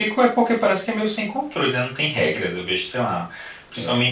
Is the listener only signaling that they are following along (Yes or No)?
Yes